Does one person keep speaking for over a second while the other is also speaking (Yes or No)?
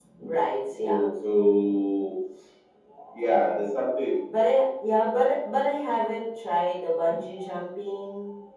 No